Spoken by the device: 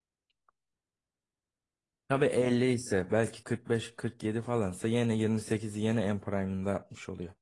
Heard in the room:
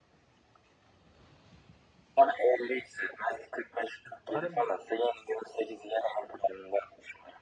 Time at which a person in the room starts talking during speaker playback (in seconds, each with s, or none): 4.0 s